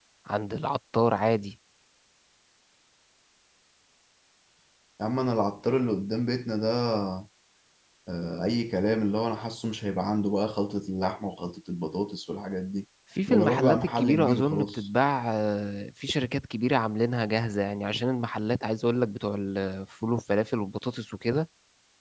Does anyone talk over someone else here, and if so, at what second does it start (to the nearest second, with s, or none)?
13 s